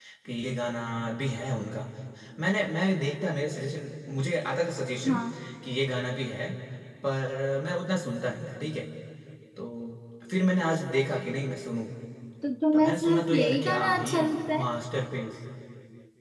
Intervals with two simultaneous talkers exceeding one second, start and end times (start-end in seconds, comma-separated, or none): 12.7-14.2